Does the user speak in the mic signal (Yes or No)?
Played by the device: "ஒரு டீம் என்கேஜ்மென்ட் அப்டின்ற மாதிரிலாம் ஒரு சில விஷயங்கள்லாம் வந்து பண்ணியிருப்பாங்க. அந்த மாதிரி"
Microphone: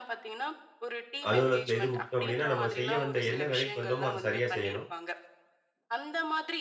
Yes